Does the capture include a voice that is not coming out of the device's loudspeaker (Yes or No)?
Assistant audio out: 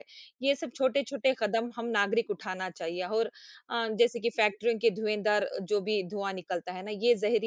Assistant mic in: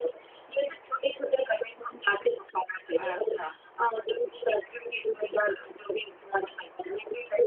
Yes